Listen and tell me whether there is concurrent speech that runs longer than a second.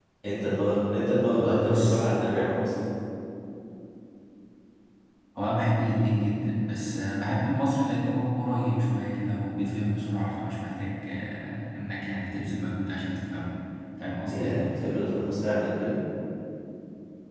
Yes, from 1.3 s

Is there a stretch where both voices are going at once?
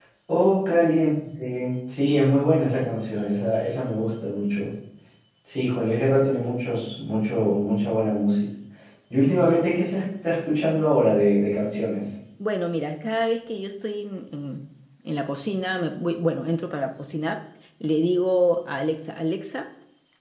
No

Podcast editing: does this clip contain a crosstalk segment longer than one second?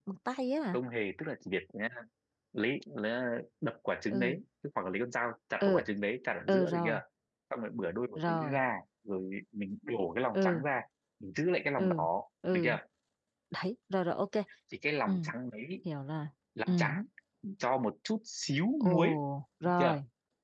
No

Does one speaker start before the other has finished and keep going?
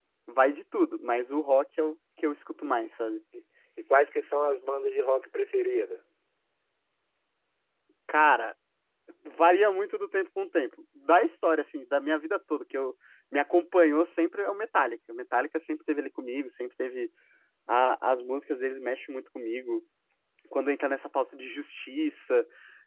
No

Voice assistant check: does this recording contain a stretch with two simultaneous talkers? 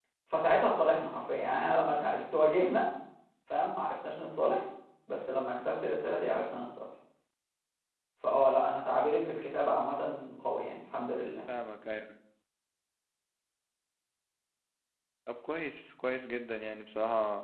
No

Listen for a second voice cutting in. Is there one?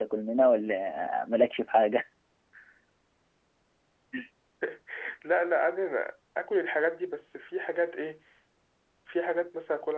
No

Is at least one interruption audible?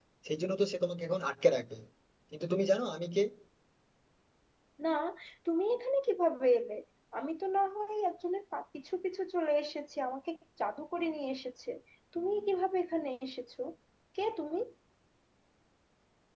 No

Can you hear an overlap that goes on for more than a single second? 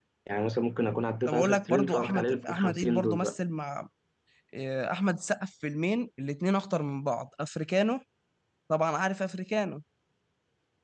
Yes, from 1.2 s

